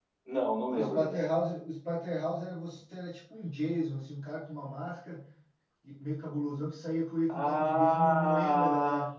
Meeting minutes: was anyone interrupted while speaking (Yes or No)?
Yes